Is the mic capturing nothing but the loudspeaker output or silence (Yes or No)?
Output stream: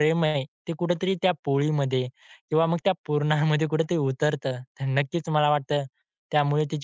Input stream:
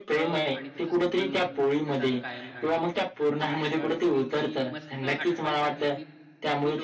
No